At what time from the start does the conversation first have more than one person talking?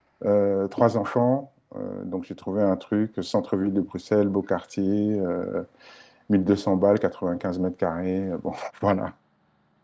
none

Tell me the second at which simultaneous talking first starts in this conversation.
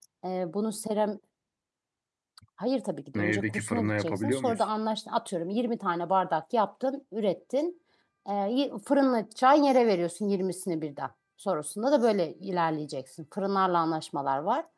3.2 s

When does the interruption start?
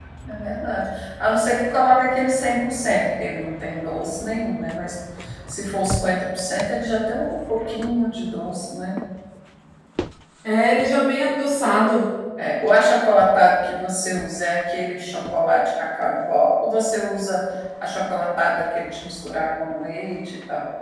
none

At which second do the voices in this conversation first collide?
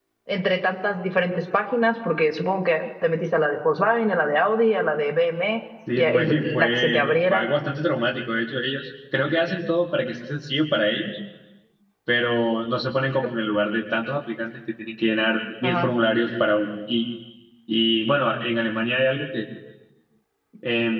5.9 s

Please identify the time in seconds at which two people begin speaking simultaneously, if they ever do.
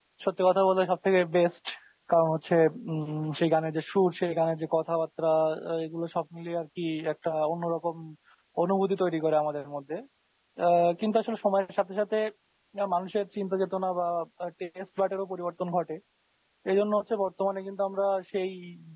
none

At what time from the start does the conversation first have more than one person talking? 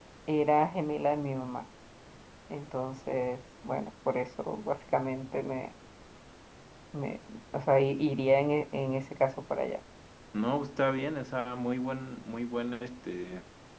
none

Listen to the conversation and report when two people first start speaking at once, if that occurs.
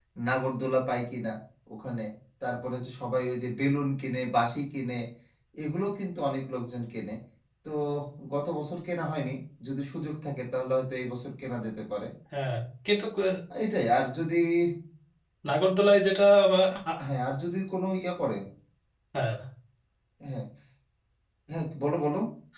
none

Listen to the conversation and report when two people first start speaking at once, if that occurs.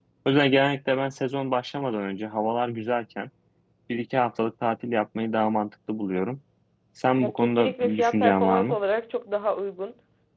7.2 s

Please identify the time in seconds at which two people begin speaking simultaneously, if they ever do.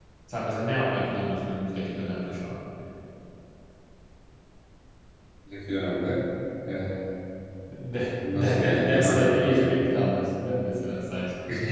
8.3 s

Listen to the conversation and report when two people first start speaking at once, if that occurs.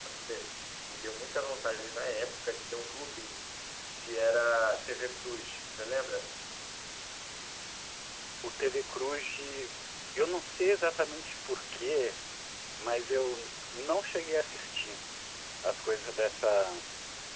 none

